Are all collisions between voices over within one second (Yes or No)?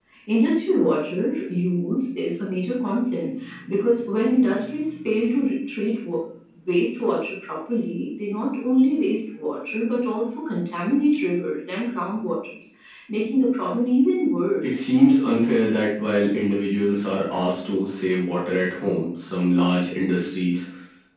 Yes